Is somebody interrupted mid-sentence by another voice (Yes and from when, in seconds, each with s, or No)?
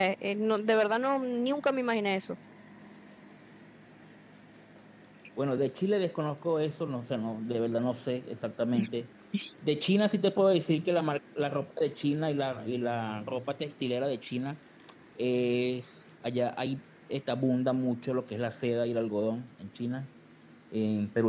No